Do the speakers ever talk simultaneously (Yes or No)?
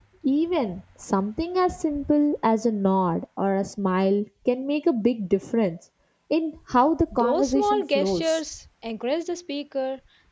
Yes